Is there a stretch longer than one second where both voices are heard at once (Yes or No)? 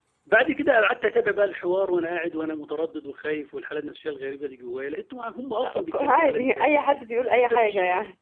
Yes